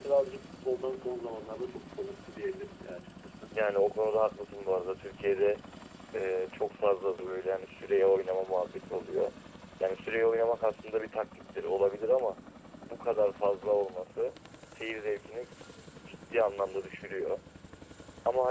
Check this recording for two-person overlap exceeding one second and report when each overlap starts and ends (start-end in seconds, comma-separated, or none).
none